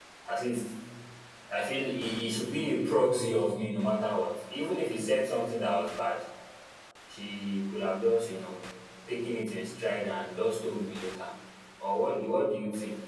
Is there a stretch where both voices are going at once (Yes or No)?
No